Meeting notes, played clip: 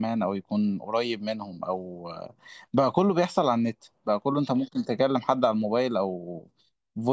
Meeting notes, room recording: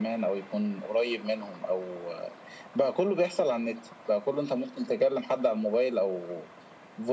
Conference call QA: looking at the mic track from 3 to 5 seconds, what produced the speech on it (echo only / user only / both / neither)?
echo only